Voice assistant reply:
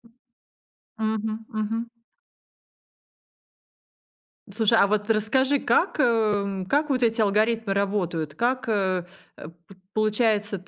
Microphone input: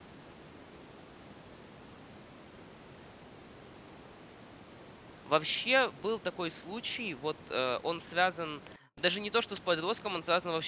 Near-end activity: present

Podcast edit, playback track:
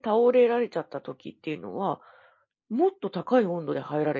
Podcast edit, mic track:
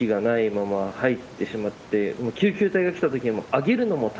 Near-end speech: present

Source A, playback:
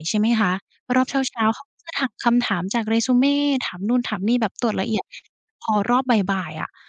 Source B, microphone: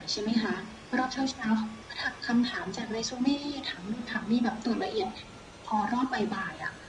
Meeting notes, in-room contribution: none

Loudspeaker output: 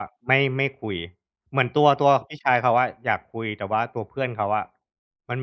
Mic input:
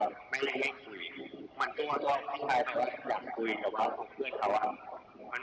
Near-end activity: none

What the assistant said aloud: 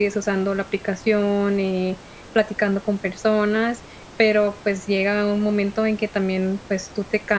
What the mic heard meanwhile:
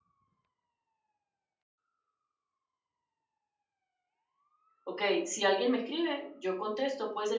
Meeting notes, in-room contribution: present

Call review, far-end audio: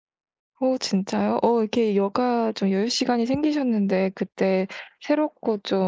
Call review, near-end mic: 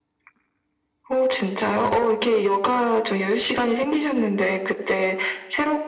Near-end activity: none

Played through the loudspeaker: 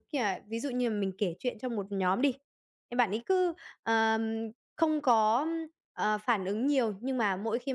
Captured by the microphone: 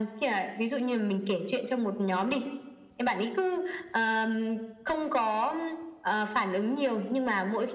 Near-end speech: none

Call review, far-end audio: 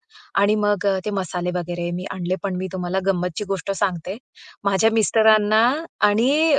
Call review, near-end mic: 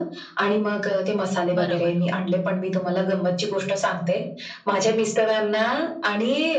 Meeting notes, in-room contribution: present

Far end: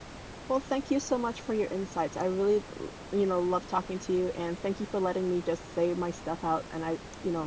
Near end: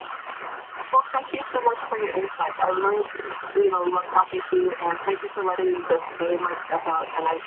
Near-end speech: none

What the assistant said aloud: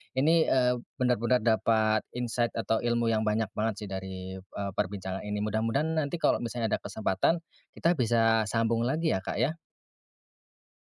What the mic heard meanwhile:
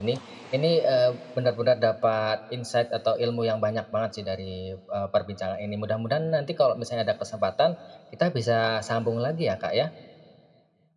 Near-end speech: none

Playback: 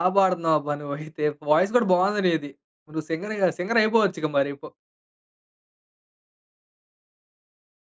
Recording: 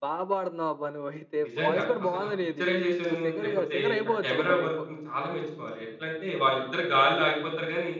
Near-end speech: present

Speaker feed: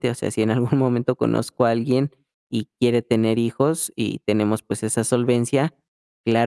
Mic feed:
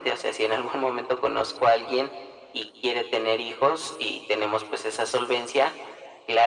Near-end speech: none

